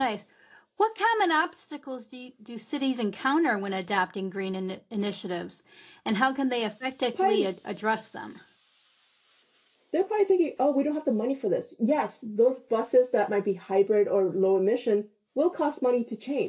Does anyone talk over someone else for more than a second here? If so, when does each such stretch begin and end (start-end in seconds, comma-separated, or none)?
none